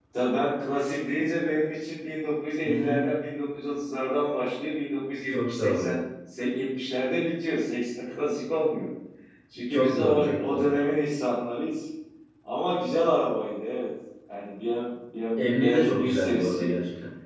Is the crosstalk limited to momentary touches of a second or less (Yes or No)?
No